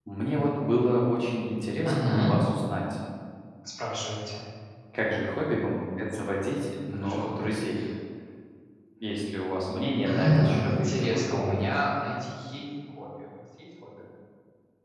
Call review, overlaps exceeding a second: present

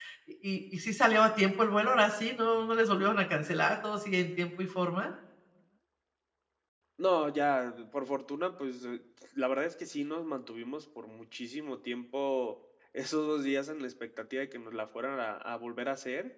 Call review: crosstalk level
none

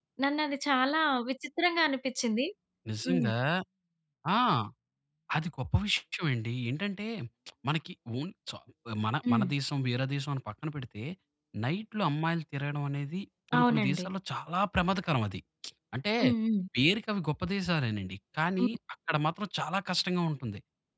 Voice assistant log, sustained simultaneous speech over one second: none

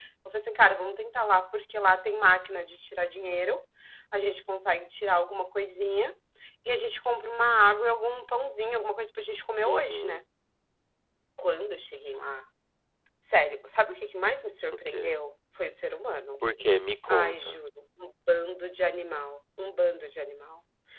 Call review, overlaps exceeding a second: none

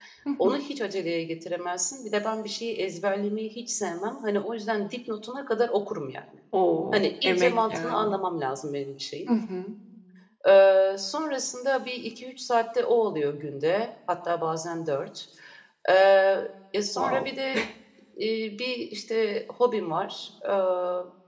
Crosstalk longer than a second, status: present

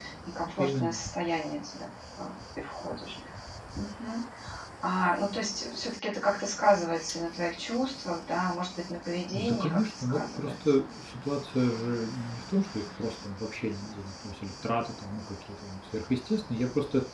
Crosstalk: present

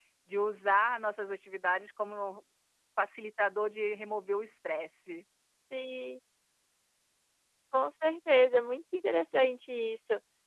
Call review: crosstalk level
none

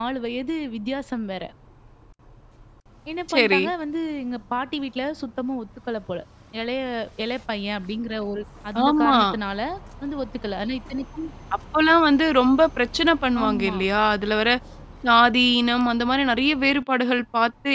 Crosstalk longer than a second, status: none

